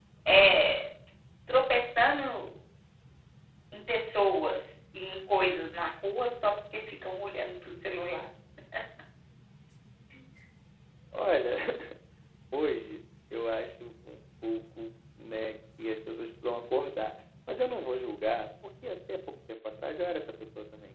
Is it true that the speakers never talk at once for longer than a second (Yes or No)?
Yes